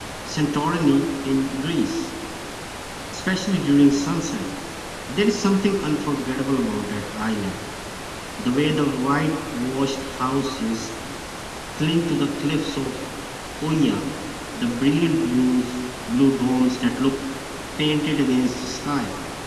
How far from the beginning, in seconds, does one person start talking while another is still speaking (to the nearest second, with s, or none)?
none